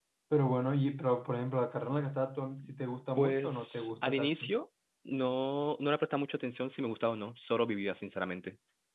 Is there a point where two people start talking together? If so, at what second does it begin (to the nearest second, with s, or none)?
3 s